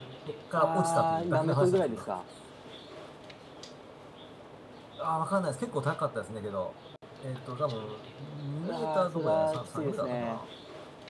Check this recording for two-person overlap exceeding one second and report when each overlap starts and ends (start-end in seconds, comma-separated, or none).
0.5-2.0, 8.6-10.4